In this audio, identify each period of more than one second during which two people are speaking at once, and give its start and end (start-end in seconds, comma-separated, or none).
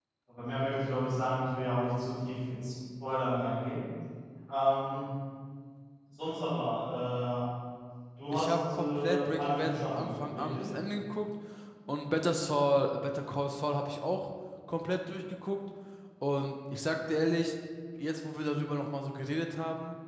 8.3-10.7